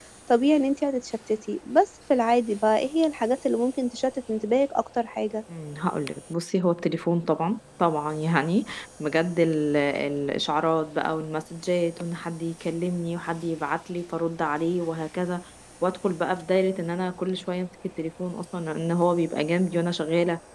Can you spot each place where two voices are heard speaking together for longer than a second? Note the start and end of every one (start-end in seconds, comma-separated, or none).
none